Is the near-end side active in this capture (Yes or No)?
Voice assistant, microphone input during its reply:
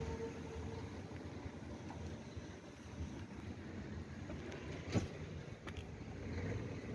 No